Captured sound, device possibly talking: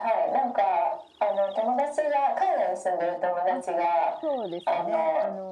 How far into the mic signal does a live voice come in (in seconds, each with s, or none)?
3.5 s